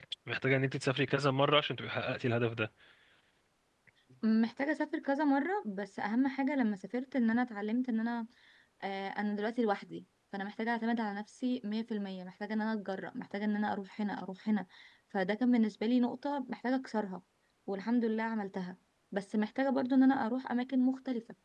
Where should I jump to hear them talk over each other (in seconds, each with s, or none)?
none